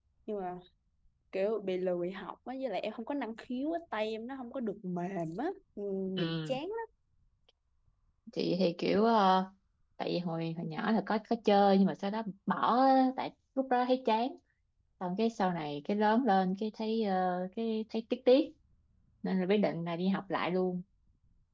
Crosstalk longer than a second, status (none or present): none